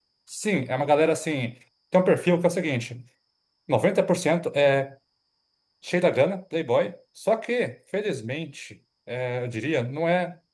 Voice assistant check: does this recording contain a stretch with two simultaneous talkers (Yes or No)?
No